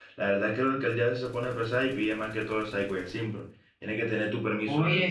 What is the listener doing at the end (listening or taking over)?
taking over